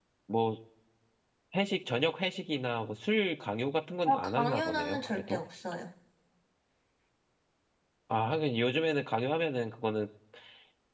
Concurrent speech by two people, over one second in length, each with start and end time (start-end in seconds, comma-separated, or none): 4.0-5.4